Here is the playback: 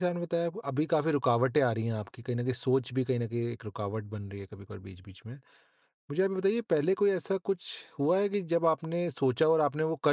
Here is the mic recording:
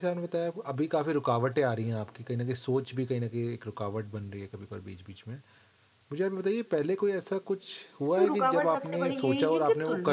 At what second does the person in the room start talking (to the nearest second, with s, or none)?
8 s